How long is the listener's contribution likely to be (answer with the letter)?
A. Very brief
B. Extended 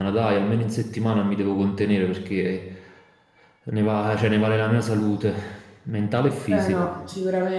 B